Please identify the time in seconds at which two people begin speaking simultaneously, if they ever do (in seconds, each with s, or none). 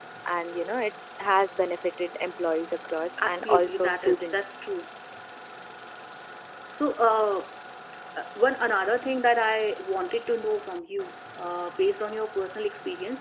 3.2 s